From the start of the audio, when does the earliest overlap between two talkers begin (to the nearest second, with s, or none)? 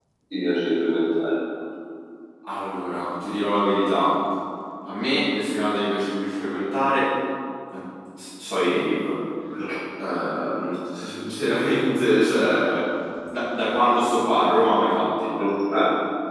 none